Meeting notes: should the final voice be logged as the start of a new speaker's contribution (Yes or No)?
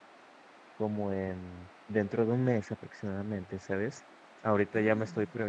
No